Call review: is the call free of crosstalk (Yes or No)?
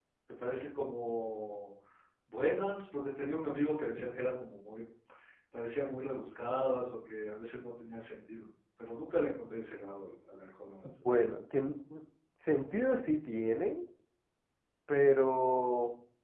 Yes